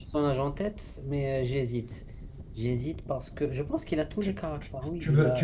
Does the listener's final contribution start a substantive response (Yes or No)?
Yes